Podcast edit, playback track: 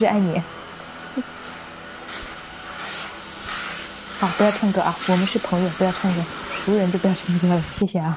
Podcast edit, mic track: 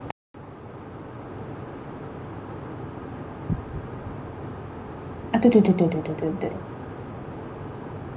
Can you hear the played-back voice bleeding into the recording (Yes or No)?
No